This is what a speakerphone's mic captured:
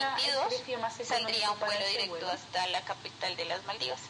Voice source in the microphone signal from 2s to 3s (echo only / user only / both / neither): echo only